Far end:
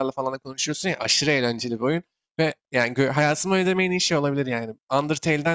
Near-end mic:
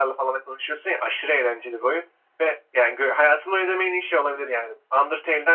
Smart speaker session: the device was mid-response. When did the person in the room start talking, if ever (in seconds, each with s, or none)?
none